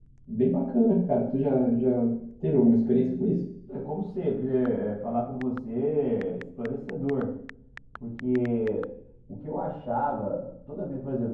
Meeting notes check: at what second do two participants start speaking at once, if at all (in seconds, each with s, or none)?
none